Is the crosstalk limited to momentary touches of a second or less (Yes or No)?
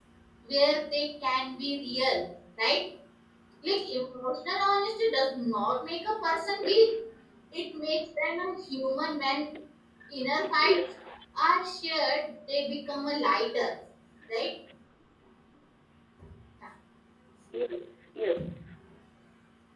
Yes